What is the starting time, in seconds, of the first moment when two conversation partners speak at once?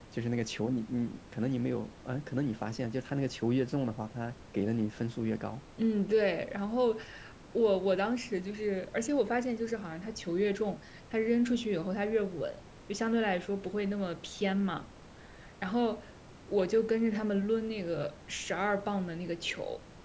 none

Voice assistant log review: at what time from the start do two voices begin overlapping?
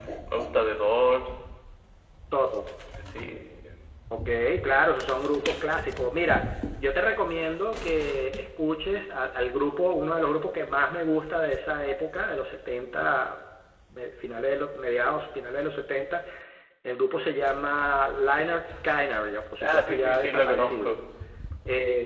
19.6 s

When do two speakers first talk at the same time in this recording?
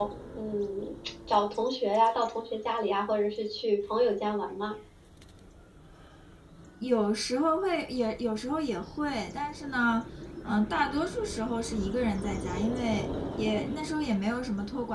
none

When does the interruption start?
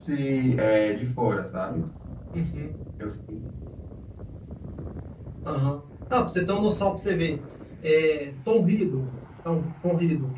none

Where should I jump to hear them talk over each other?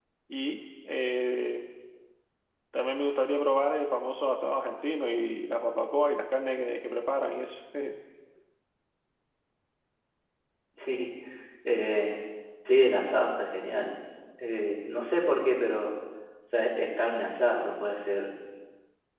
none

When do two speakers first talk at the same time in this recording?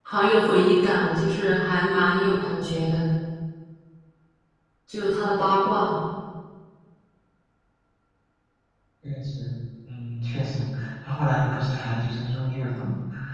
none

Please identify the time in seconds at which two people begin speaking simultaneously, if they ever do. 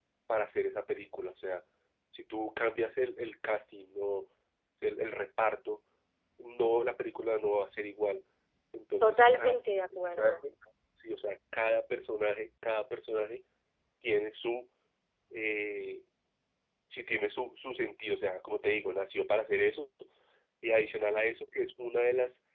9.0 s

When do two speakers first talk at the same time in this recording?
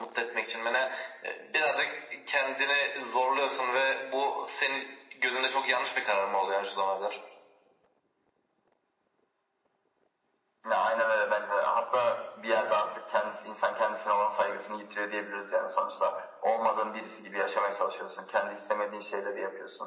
none

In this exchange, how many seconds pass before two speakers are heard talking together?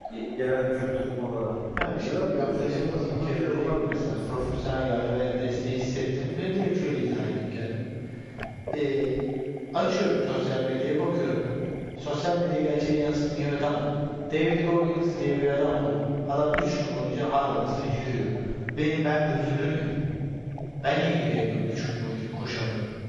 1.5 s

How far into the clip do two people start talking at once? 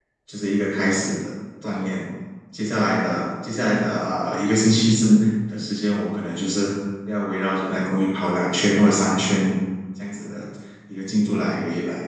none

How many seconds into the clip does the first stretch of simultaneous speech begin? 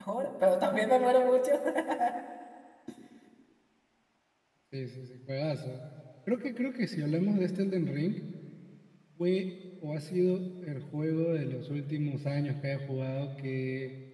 none

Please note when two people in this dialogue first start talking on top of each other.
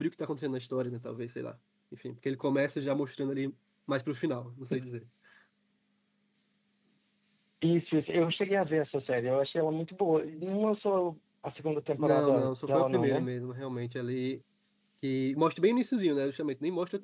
12.0 s

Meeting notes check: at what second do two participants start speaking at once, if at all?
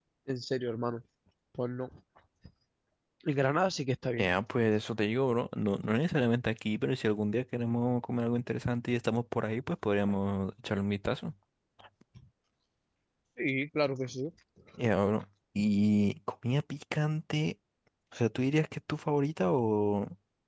none

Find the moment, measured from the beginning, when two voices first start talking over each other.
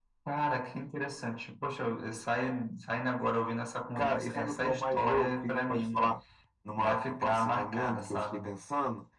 4.0 s

